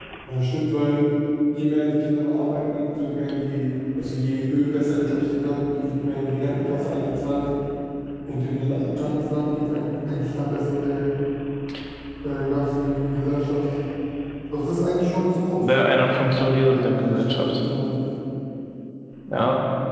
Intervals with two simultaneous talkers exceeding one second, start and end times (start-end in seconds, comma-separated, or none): 15.6-17.6